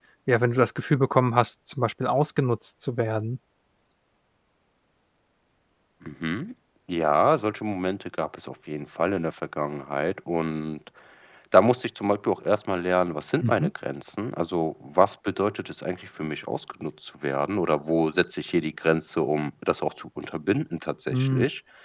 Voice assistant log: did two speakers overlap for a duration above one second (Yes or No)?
No